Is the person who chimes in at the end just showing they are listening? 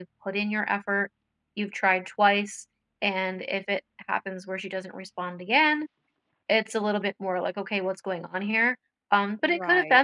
Yes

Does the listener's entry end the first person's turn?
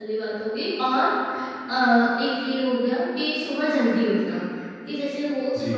No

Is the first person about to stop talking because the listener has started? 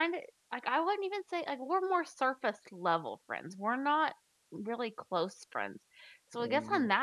No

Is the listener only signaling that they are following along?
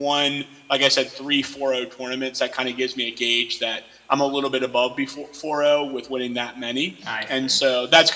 Yes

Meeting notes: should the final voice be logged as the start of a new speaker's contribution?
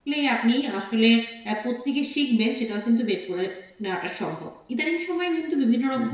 No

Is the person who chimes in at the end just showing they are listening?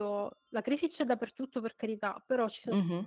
Yes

